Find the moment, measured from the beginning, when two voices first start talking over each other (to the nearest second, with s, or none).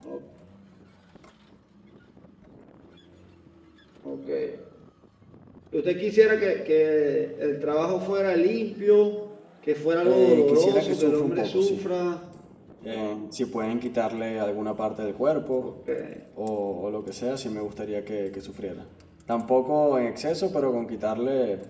10 s